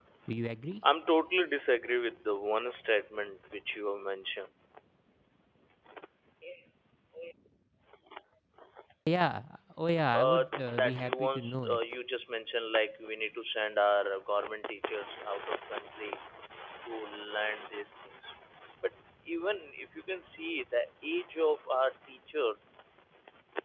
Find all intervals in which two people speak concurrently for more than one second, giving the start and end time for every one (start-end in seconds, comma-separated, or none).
10.1-11.8